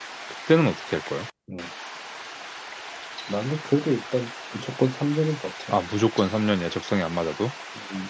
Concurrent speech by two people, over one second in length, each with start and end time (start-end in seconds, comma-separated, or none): none